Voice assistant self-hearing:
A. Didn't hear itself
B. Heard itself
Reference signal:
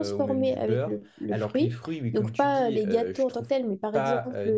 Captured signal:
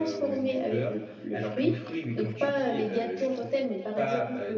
B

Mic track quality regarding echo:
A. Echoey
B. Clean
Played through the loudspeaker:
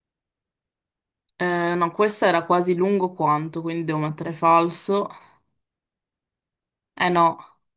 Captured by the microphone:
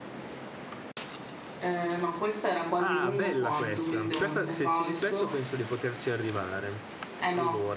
A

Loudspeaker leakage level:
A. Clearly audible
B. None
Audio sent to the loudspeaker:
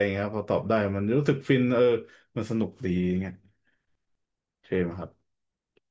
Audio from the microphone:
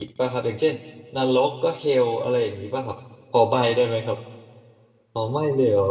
B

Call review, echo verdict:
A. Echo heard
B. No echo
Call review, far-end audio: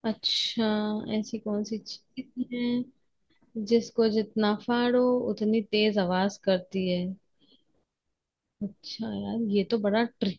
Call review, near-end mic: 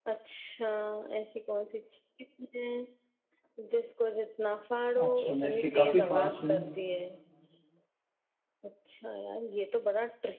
A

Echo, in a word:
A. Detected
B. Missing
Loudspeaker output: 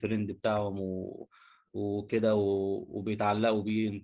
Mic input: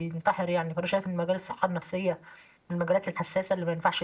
B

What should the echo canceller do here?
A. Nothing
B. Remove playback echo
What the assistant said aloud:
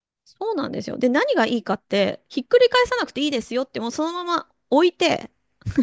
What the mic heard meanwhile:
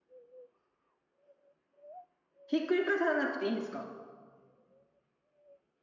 A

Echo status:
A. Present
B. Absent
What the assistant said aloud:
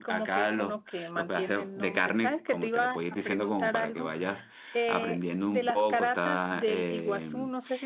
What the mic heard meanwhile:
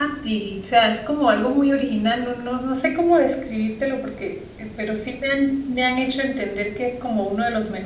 B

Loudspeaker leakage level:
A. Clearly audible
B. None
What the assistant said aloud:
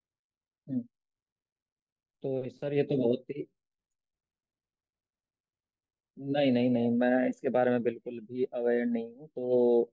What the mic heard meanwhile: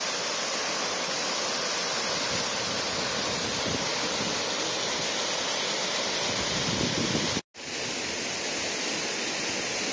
B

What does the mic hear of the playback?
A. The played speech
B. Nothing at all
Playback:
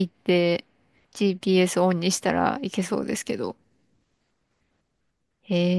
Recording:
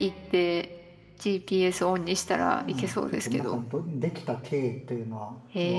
A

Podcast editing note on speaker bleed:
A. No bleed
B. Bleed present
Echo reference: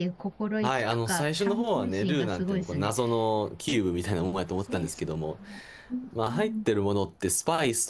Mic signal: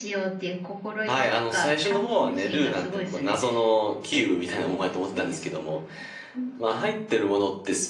B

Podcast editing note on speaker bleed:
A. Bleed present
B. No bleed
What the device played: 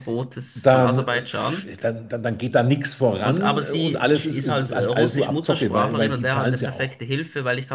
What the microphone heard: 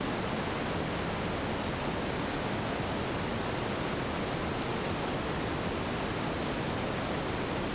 B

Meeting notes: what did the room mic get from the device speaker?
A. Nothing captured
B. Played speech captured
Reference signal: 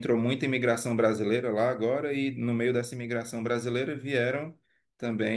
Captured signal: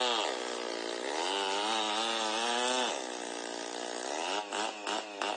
A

